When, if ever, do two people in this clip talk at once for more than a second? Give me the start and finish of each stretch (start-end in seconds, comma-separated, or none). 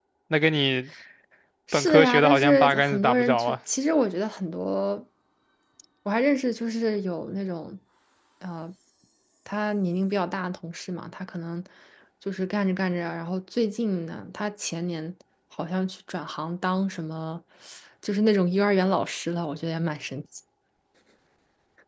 1.7-3.6